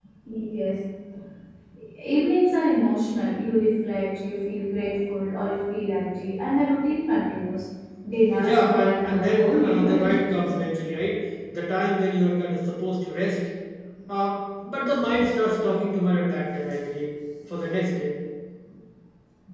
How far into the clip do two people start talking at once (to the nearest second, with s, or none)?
8 s